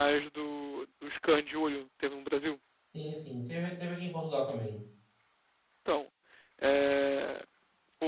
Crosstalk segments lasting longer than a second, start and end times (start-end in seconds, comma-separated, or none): none